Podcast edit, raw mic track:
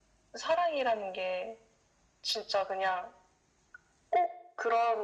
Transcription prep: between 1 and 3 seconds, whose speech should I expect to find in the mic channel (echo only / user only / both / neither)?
echo only